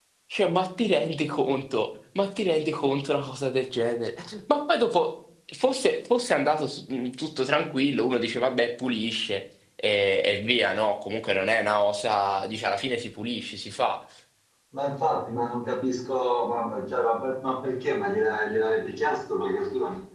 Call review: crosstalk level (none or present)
none